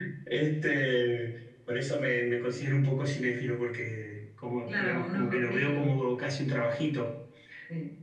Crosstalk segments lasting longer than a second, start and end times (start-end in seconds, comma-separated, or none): 4.7-6.0